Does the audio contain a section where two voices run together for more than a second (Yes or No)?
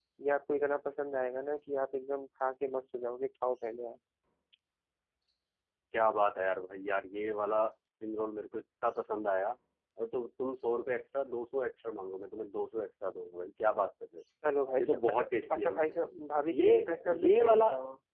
Yes